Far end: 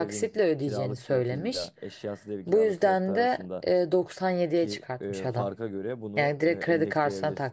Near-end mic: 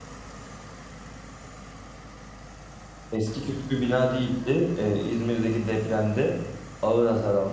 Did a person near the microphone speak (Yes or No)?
Yes